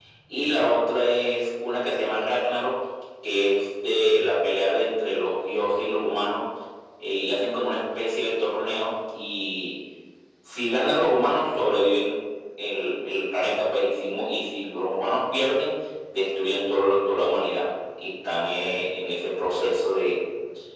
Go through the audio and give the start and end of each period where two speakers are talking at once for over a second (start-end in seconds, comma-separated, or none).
none